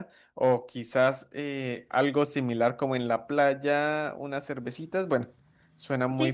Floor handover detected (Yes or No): Yes